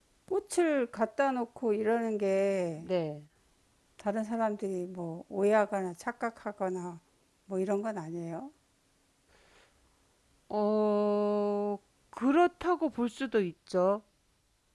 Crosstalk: none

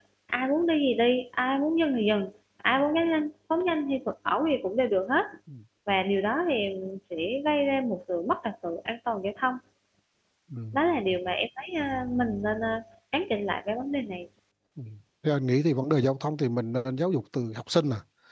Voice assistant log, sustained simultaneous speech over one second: none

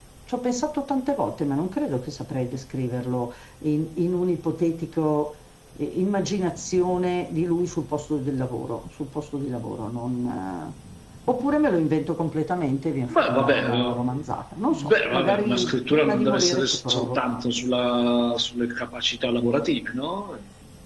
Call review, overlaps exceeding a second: present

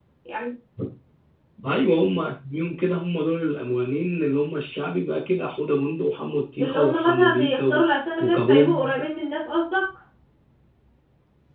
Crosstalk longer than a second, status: present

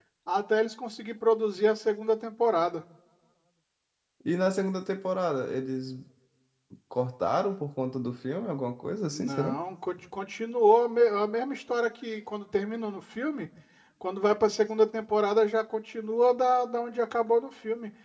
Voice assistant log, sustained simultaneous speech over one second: none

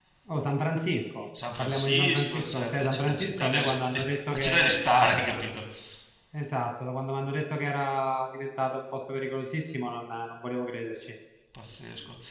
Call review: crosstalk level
present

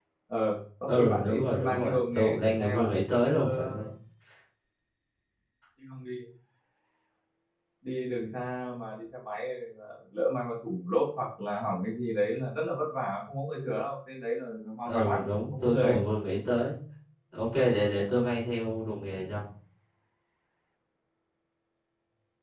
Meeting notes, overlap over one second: present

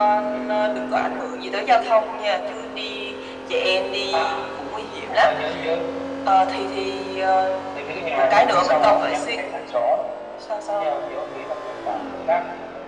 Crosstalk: present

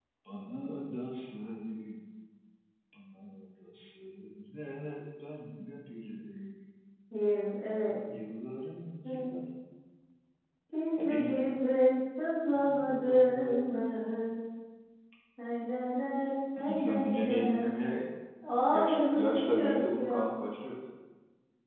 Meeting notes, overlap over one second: present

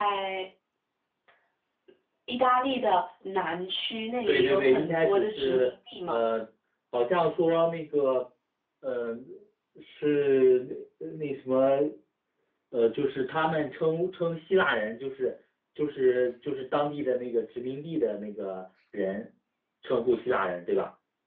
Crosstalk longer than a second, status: present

